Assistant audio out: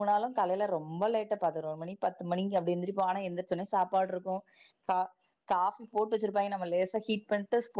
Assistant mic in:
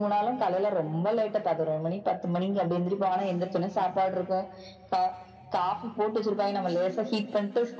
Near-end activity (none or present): none